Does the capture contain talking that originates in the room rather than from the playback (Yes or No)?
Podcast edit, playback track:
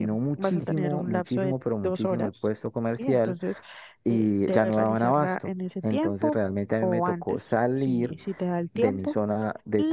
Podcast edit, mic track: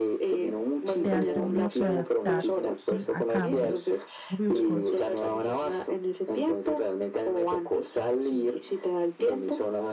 Yes